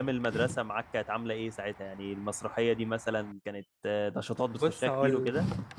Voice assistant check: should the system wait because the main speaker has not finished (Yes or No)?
No